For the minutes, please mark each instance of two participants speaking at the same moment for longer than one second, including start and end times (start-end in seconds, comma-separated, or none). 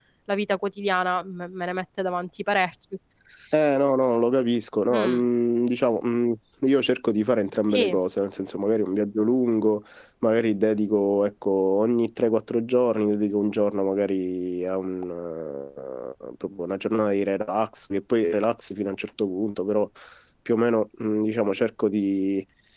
none